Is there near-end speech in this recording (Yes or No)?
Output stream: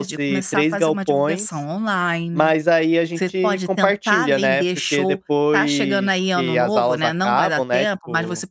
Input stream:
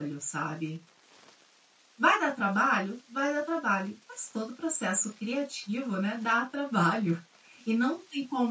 Yes